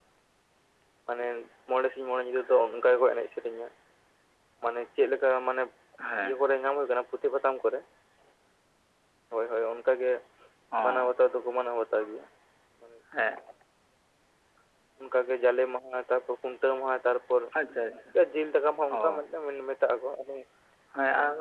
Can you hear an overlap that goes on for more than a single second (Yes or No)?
No